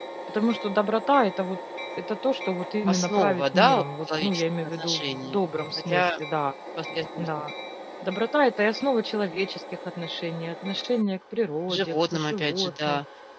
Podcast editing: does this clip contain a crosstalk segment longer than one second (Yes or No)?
Yes